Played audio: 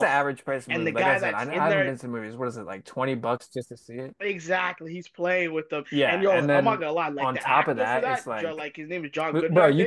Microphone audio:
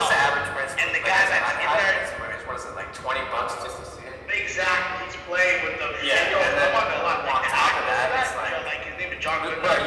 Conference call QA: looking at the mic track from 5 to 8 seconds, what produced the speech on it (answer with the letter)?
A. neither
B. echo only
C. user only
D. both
B